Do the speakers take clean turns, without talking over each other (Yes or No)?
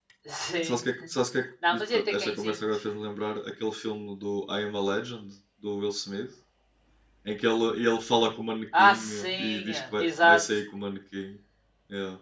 No